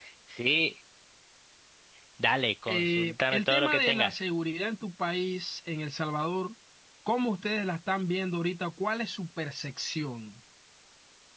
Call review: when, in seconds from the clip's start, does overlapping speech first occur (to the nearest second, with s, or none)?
3 s